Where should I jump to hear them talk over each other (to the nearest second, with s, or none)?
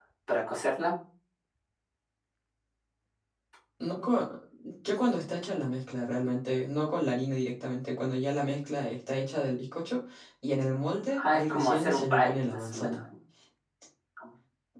11 s